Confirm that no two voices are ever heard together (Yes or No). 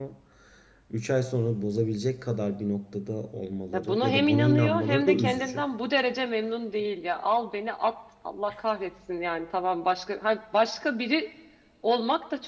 No